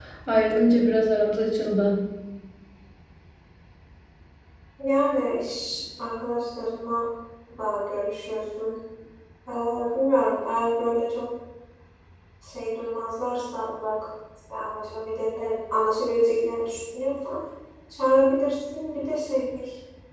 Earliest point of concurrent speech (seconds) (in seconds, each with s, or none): none